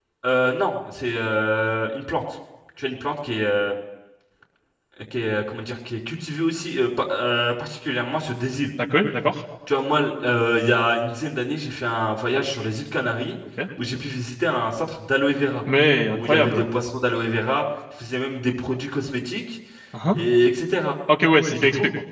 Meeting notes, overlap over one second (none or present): none